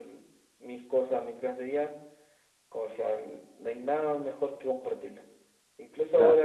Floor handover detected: No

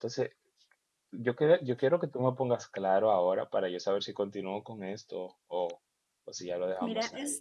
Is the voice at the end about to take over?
Yes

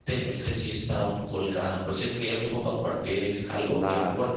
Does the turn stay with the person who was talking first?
No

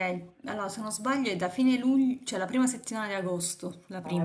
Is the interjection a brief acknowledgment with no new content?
No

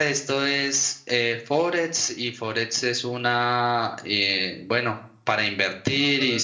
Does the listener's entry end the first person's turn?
No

